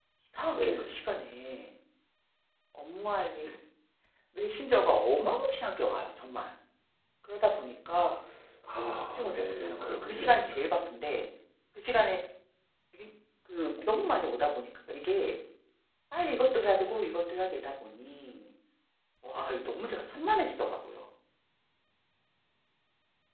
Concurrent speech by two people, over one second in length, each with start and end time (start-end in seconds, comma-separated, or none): 9.1-10.4